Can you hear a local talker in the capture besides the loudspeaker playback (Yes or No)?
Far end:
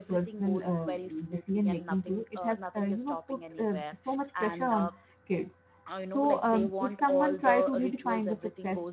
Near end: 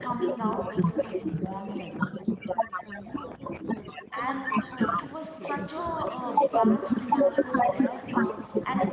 Yes